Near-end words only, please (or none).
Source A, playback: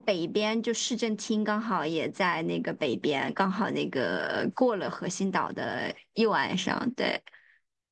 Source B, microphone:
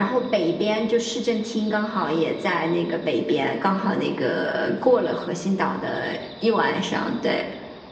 none